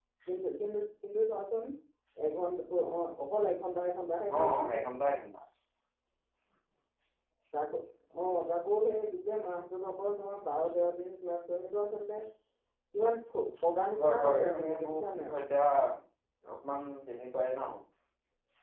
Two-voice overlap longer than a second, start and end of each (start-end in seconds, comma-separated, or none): 14.0-15.3